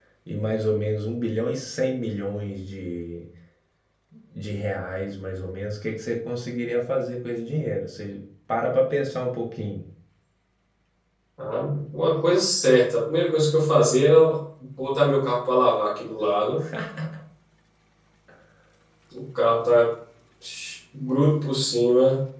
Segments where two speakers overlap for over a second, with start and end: none

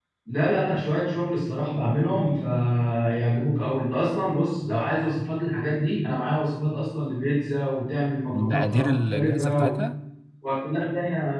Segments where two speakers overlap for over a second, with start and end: 8.3-9.7

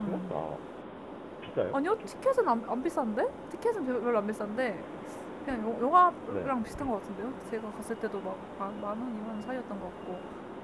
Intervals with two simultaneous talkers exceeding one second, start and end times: none

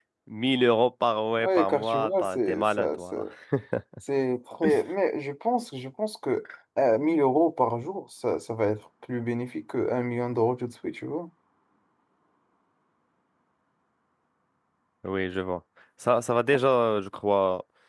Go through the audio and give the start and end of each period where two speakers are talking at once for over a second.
1.4-3.2

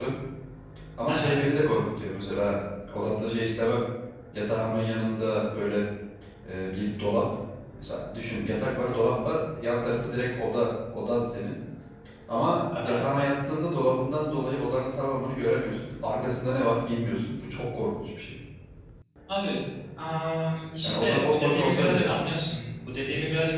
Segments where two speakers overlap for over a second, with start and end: 20.8-22.1

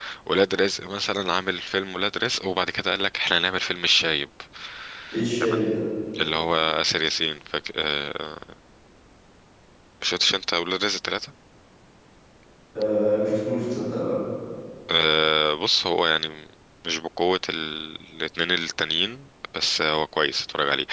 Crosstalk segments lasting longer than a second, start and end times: none

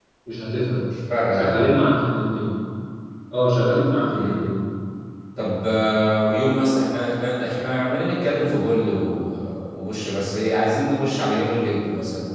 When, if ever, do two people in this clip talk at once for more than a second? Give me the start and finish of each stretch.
none

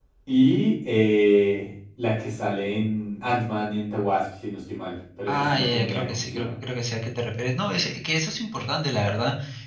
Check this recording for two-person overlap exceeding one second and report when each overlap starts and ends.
5.3-6.5

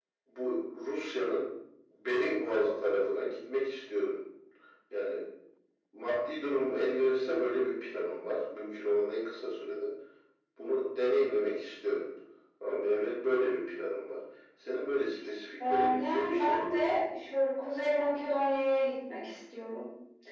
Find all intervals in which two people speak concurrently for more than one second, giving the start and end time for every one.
15.6-16.9

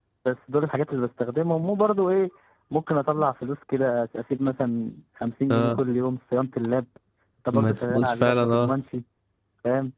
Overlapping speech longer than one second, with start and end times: 7.5-8.7

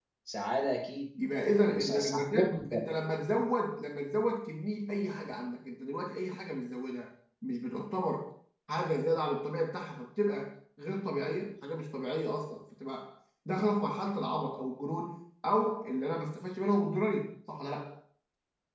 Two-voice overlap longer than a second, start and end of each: 1.5-2.8

